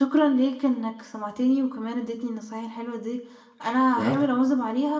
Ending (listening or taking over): listening